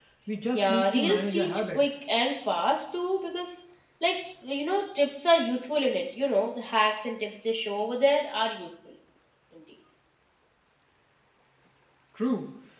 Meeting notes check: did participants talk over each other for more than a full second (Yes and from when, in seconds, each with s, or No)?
Yes, from 0.5 s